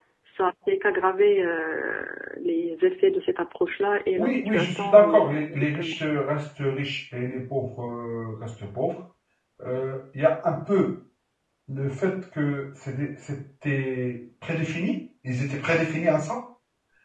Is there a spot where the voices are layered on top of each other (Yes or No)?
Yes